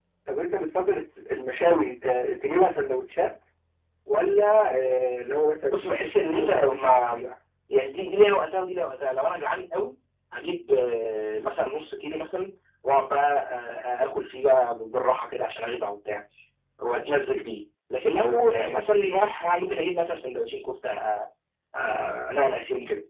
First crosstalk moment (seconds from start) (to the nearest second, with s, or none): 6 s